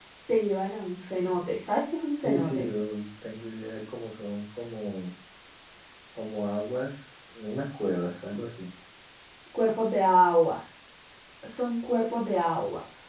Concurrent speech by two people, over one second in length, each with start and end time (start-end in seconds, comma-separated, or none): none